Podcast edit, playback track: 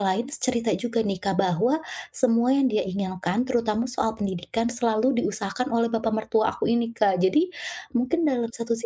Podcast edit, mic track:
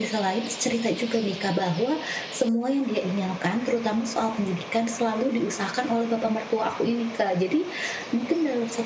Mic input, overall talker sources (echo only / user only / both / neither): echo only